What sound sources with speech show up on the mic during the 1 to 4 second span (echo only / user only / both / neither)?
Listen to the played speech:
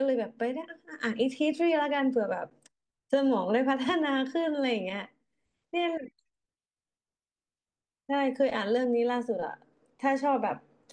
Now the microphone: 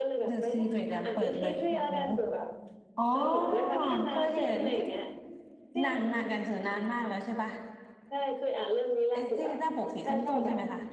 both